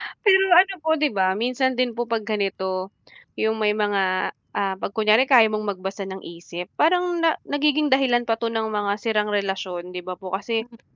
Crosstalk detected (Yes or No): No